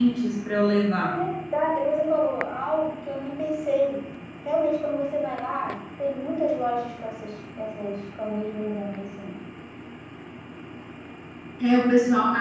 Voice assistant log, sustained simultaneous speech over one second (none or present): none